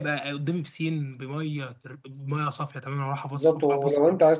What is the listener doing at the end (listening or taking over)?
taking over